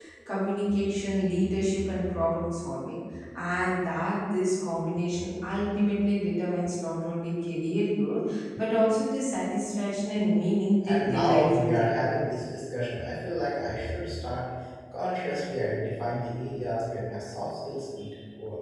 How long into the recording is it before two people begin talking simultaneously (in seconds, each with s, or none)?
10.8 s